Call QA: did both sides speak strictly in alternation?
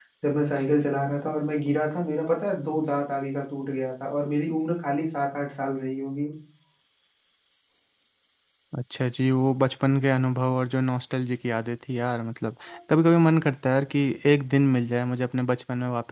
Yes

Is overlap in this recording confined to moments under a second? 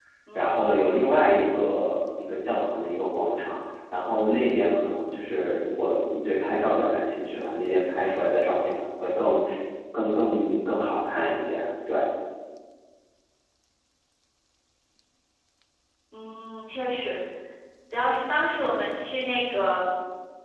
Yes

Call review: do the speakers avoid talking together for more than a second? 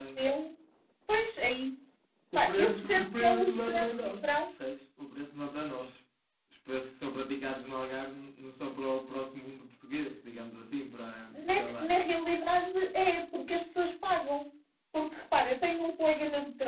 No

